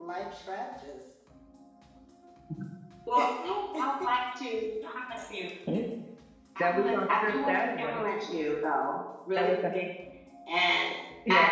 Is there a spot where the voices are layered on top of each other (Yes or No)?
Yes